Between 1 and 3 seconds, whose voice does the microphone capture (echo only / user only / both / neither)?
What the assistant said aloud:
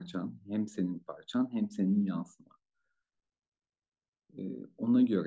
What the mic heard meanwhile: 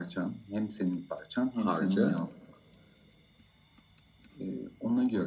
both